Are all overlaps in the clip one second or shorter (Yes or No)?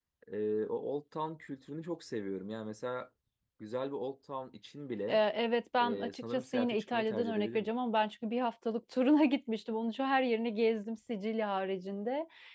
No